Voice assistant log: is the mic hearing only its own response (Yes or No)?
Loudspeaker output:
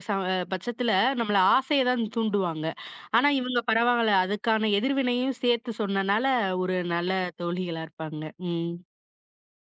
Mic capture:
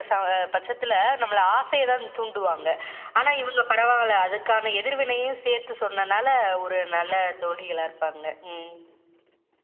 Yes